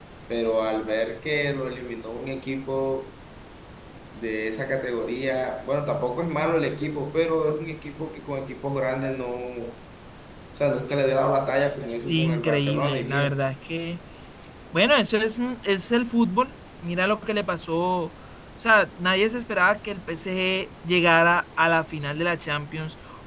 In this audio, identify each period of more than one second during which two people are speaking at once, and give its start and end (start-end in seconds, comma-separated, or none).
11.9-13.3